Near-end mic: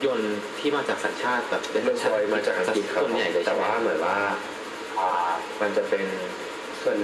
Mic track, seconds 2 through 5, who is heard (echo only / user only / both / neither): echo only